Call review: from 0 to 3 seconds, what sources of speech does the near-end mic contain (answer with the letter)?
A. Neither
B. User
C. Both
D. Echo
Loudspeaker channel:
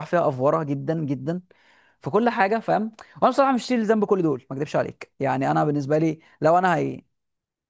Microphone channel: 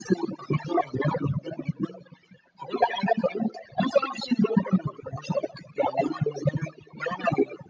D